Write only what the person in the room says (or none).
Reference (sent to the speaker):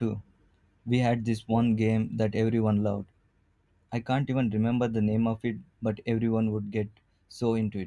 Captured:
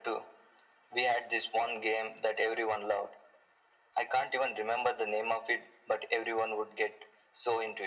none